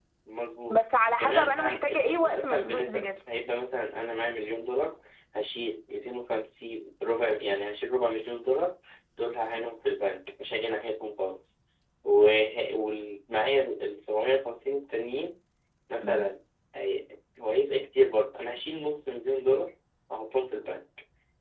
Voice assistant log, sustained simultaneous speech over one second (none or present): present